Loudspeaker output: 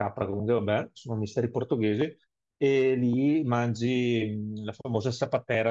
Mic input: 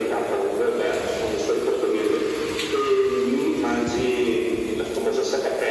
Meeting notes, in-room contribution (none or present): none